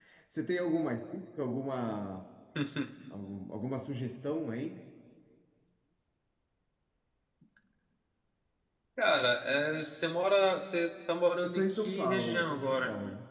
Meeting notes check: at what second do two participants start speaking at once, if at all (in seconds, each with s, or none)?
11.4 s